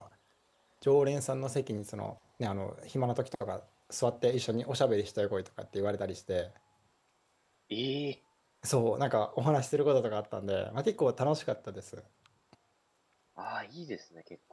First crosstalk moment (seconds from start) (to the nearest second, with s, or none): none